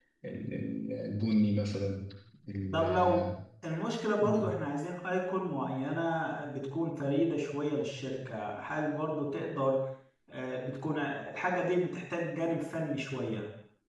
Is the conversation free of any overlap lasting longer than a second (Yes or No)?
Yes